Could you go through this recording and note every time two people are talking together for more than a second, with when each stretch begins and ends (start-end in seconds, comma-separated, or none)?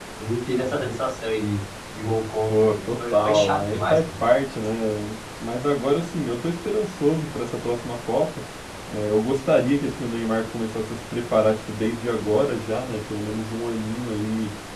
2.5-4.0